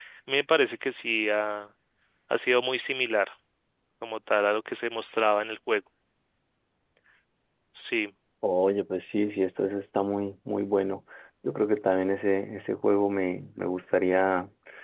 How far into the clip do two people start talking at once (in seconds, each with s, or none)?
none